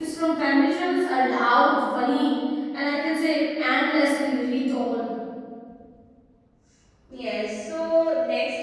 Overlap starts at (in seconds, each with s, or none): none